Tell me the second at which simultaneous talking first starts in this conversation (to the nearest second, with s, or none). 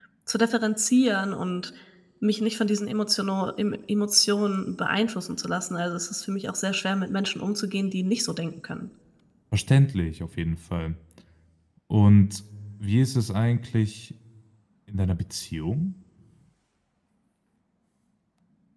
none